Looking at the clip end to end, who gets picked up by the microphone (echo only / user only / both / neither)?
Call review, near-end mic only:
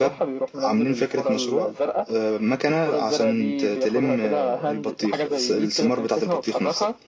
both